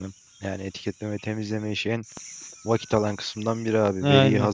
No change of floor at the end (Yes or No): Yes